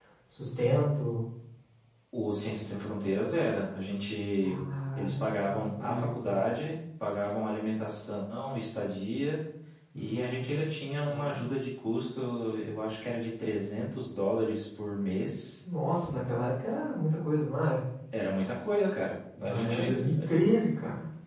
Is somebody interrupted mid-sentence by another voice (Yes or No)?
Yes